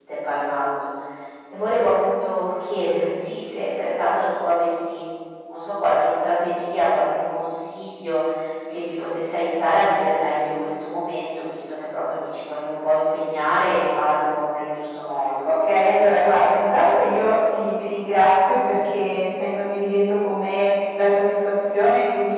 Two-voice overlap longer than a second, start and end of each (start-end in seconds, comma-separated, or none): none